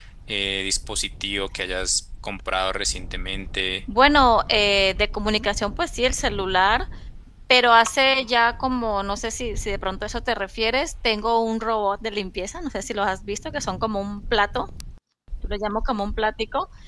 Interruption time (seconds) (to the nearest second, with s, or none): none